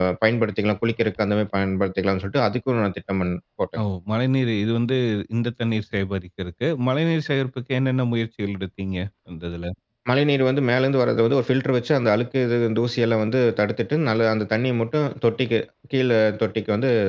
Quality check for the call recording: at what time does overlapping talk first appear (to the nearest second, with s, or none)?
none